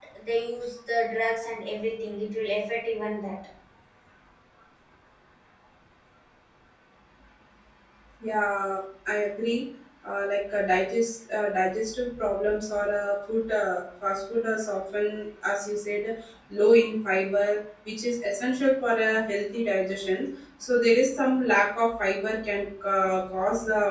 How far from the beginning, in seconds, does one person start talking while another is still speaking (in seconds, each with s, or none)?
none